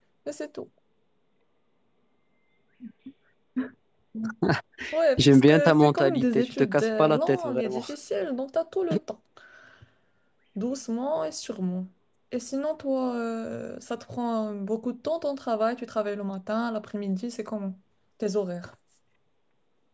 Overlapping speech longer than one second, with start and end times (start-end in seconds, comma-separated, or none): 5.2-7.8